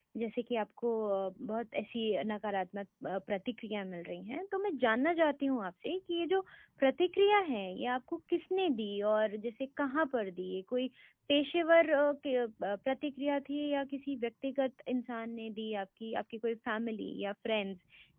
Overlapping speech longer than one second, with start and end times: none

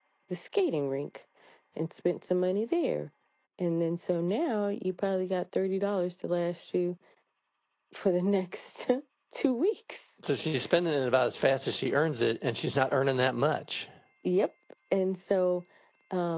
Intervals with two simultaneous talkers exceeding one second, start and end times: none

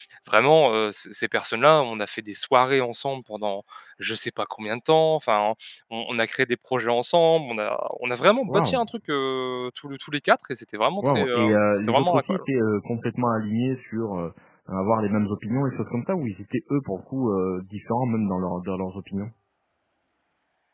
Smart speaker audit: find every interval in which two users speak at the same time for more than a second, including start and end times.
11.0-12.4

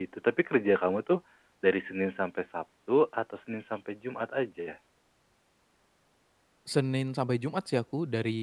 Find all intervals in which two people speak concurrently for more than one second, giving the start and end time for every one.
none

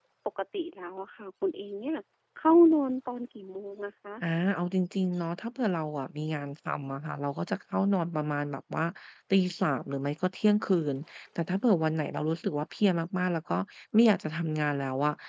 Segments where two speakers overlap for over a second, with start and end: none

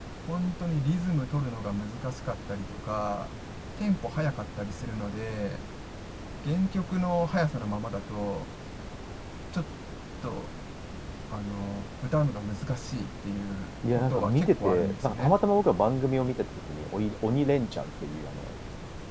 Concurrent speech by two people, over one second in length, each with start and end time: 13.9-15.3

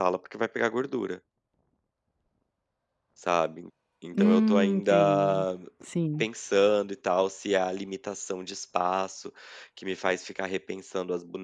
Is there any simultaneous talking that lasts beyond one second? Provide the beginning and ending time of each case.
4.1-5.5

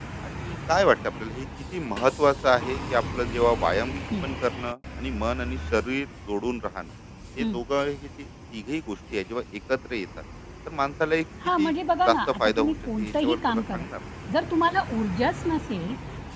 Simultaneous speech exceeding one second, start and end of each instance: 12.1-13.8

